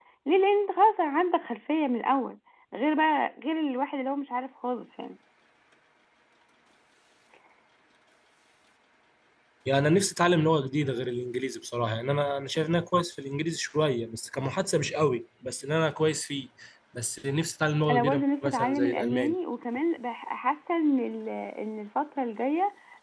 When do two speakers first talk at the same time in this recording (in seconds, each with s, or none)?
17.9 s